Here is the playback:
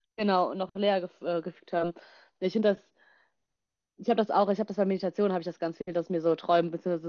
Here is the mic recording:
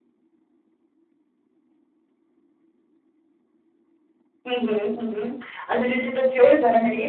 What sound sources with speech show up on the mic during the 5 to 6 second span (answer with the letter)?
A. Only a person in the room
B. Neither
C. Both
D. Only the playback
A